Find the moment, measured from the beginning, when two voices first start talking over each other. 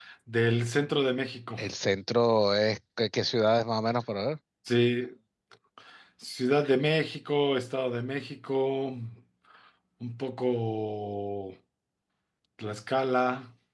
none

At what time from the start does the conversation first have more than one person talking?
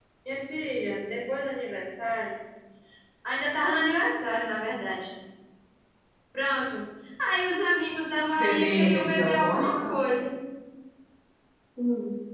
8 s

